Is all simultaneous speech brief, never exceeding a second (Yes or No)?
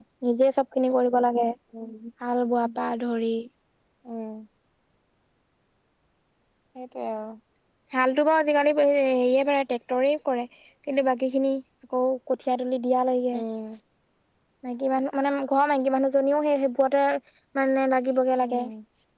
Yes